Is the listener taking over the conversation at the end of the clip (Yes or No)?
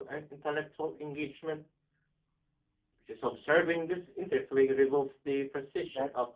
Yes